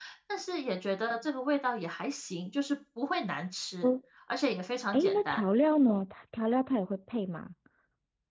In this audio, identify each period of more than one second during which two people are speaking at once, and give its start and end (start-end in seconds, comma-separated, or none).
none